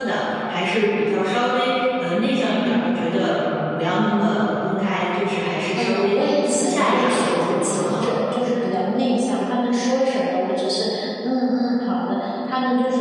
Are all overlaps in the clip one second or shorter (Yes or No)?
No